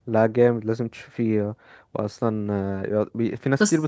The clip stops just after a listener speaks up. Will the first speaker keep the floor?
Yes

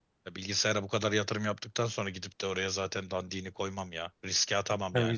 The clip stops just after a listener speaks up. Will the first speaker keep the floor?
No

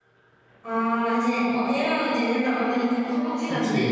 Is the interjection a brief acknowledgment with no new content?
No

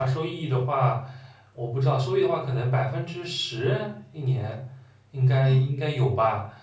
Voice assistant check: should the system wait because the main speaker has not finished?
Yes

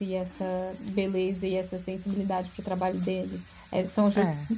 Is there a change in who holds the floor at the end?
No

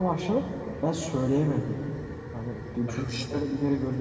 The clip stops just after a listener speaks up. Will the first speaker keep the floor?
Yes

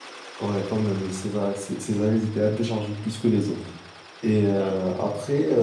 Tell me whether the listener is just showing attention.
Yes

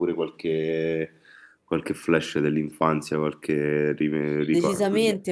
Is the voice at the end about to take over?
Yes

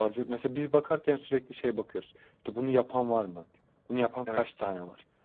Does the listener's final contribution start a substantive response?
No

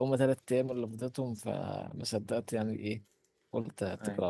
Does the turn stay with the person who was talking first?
Yes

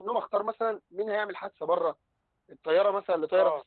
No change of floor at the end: Yes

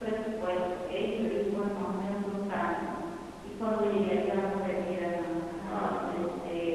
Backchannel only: No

